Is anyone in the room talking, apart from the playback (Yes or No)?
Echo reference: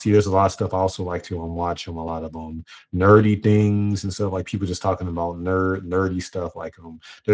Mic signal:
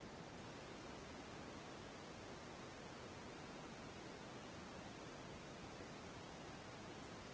No